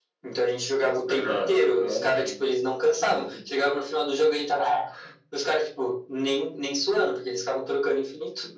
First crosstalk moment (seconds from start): 1.1 s

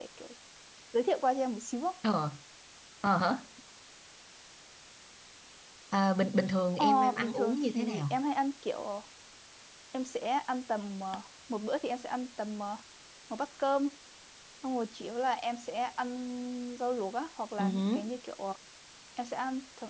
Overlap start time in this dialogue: 6.7 s

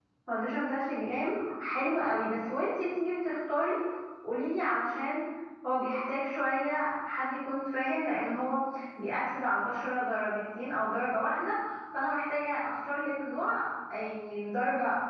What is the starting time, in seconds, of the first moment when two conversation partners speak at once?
none

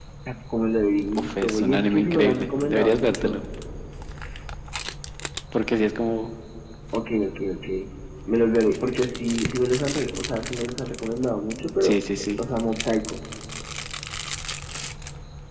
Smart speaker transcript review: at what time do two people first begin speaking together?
1.2 s

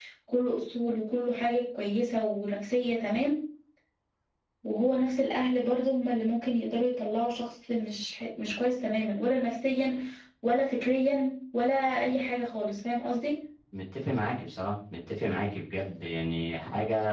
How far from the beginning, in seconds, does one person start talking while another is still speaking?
none

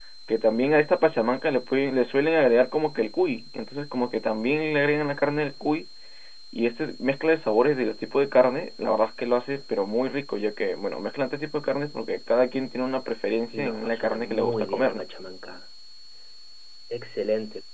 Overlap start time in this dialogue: 13.5 s

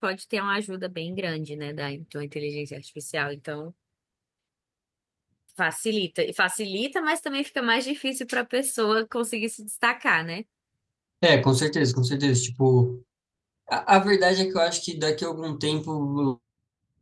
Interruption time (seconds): none

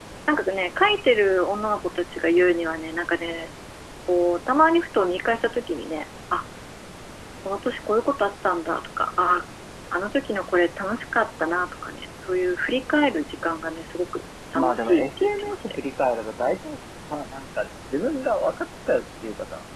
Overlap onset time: 14.5 s

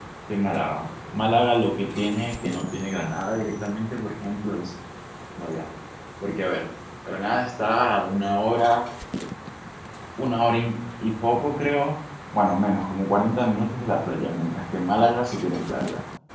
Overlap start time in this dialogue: none

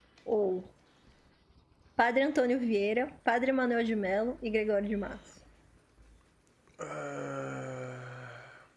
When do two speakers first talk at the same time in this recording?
none

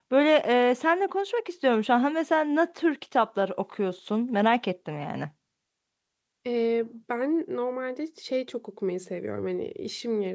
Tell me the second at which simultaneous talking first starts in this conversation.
none

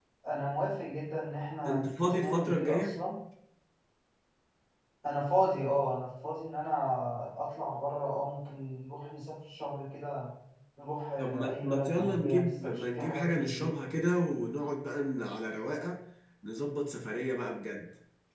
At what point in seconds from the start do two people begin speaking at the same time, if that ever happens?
1.7 s

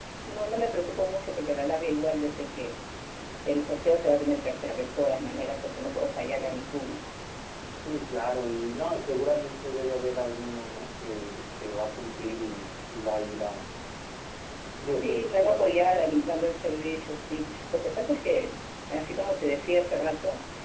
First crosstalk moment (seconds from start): 14.9 s

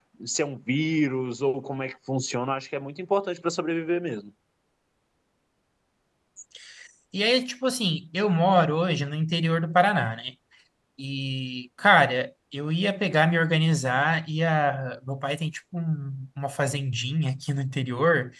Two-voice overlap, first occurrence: none

